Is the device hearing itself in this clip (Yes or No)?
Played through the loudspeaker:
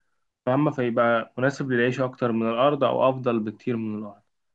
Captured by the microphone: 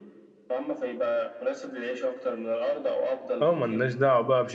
Yes